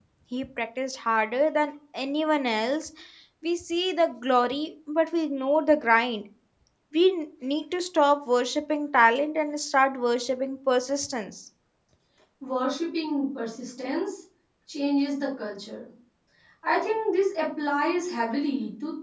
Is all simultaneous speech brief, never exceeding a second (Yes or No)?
Yes